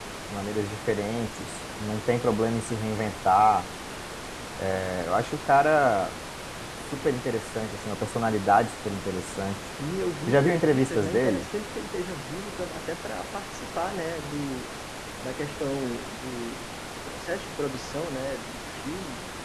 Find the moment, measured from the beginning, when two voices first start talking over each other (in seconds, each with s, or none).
10.3 s